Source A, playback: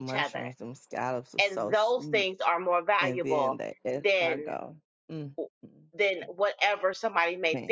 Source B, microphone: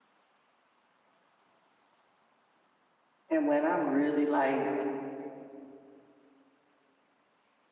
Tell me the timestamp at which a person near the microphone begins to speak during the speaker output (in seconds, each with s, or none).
3.3 s